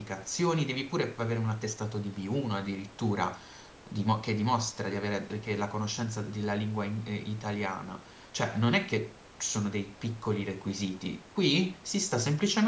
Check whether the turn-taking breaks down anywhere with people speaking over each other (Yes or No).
No